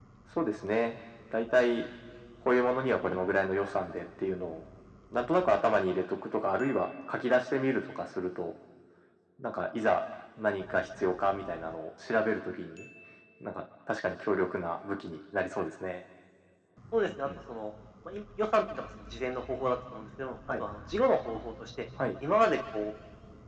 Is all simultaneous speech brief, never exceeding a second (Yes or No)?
Yes